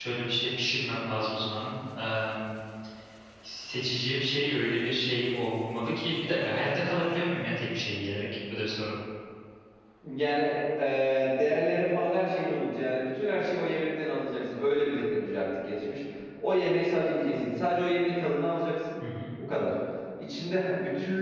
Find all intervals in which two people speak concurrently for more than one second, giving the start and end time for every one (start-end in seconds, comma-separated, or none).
none